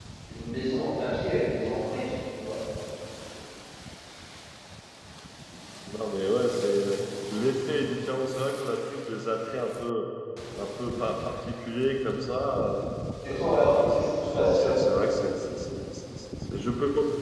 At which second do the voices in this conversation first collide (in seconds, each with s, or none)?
13.3 s